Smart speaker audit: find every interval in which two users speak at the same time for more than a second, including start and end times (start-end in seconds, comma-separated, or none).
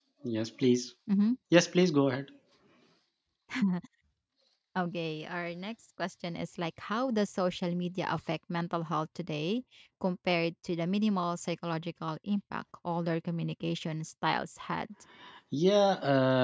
none